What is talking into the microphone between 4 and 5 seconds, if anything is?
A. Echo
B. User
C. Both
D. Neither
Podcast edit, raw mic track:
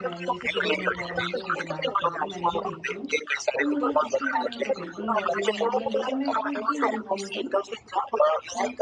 C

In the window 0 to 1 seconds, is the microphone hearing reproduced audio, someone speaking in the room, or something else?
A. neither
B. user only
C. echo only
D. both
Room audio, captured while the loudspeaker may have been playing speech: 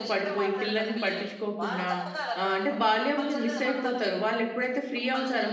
D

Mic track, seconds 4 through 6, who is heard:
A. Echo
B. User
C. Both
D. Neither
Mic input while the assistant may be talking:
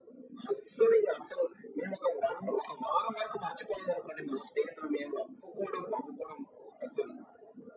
A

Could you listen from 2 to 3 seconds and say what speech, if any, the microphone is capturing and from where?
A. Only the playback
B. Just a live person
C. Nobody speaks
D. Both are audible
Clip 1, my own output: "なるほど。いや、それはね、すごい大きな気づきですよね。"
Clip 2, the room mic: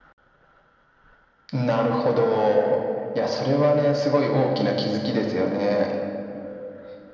A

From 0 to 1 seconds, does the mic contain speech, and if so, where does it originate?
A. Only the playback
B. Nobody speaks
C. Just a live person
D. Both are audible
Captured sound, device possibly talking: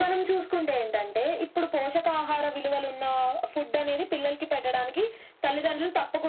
A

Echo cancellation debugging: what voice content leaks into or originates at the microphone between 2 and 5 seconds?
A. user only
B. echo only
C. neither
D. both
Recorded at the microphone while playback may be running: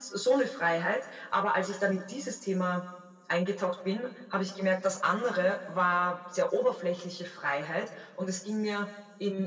B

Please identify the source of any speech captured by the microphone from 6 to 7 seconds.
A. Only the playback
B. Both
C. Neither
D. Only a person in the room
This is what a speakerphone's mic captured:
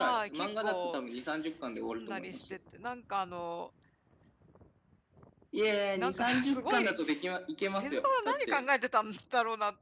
B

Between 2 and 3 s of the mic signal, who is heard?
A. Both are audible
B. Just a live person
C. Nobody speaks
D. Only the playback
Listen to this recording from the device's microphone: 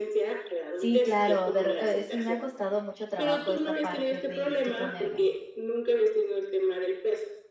A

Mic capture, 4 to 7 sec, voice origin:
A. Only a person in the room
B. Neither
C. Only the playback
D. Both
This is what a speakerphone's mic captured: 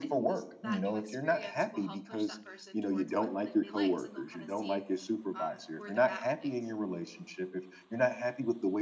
D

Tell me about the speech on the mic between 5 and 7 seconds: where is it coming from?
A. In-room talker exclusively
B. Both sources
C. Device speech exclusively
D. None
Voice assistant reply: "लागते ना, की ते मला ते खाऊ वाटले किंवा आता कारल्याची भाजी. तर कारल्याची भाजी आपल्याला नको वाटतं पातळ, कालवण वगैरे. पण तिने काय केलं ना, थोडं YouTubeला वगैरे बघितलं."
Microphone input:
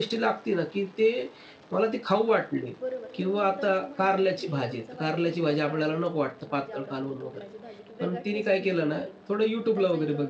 B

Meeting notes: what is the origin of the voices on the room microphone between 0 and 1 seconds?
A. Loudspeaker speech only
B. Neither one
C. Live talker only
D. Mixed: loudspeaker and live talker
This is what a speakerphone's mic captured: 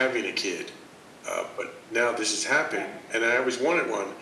A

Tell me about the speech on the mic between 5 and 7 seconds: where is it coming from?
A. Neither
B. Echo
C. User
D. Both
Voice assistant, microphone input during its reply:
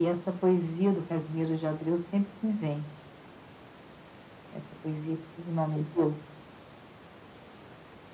B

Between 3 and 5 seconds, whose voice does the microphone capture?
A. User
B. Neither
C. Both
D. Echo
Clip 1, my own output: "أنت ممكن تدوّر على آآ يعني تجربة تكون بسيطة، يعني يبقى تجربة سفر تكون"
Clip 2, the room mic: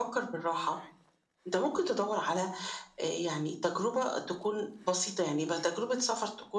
D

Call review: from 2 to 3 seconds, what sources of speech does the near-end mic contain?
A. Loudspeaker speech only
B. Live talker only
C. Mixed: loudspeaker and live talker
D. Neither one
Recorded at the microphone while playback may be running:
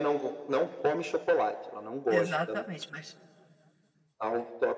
C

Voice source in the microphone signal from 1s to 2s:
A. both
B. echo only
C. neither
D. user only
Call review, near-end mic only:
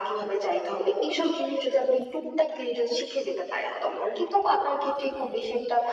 B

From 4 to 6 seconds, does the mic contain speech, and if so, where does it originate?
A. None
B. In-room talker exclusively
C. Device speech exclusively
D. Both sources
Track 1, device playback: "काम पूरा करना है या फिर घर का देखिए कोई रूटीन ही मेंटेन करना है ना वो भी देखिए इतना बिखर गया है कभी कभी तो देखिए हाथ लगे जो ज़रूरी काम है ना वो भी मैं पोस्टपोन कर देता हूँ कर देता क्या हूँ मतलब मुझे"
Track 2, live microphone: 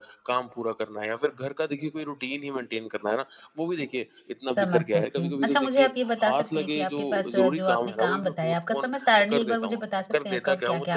D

